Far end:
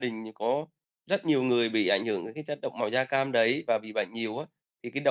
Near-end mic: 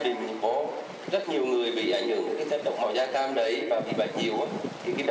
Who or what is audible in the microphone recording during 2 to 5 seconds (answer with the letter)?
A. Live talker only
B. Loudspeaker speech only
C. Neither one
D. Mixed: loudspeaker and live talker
B